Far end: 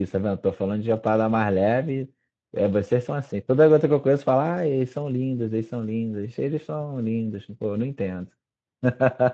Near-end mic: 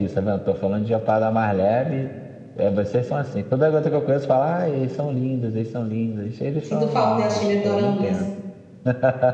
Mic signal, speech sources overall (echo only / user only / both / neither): both